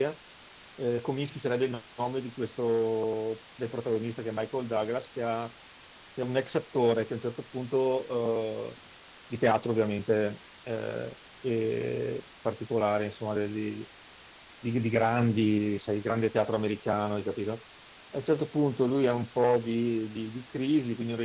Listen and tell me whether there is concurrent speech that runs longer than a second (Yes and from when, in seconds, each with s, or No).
No